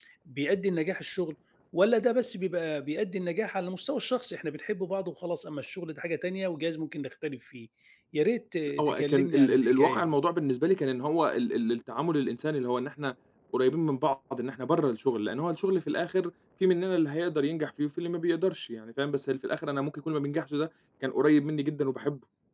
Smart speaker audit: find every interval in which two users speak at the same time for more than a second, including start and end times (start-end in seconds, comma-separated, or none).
8.8-10.1